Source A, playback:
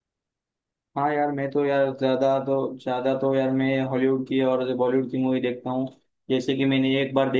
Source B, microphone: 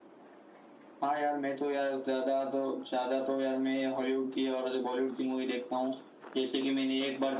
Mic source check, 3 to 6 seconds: echo only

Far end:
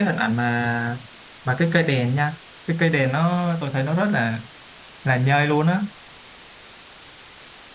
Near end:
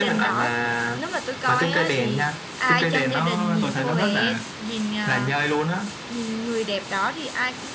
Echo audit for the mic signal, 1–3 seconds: both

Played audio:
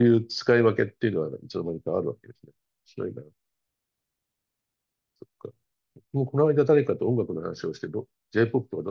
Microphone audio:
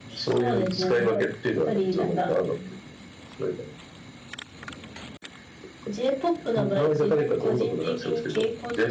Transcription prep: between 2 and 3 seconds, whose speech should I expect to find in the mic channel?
both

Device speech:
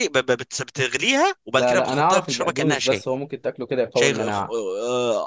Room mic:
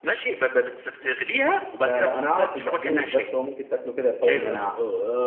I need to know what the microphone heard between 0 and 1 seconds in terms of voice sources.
echo only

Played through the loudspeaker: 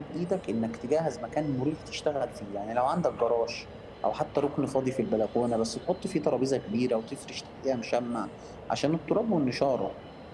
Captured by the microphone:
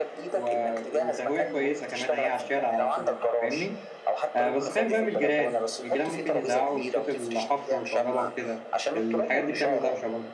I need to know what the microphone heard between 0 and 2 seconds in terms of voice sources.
both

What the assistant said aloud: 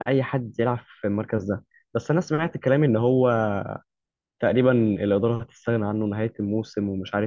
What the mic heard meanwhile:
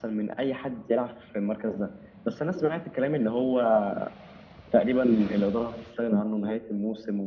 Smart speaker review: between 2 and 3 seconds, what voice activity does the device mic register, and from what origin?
echo only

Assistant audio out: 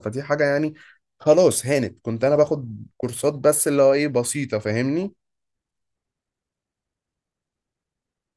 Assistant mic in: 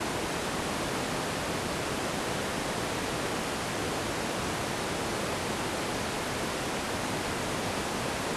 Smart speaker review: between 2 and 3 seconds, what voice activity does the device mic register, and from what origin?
neither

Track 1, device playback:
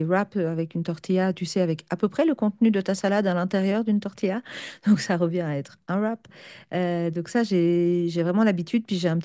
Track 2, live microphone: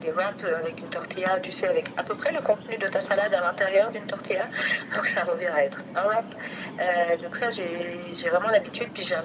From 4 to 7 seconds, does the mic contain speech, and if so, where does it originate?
echo only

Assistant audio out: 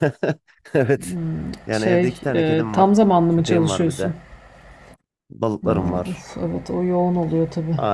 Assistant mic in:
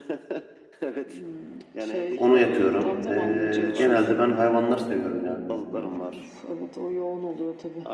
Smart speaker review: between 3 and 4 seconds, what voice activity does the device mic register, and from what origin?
both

